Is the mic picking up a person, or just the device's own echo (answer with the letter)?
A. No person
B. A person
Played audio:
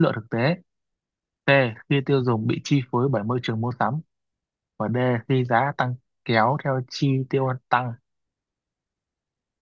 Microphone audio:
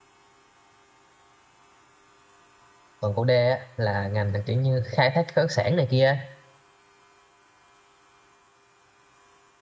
B